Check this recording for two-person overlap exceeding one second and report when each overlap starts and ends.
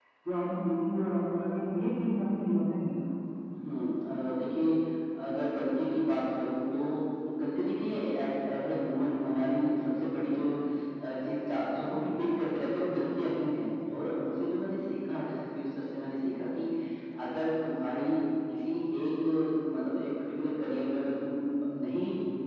none

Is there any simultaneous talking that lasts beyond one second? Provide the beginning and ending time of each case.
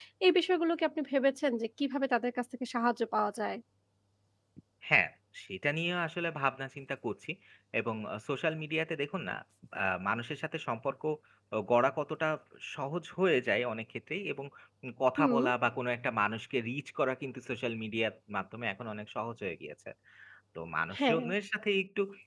none

